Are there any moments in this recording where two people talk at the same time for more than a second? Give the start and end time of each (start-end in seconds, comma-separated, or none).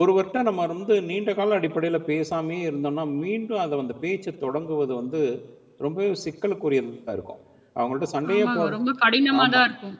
none